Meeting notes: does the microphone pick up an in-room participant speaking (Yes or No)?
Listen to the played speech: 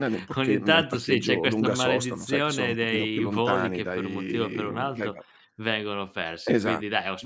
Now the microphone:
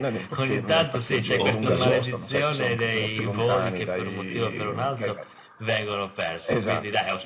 Yes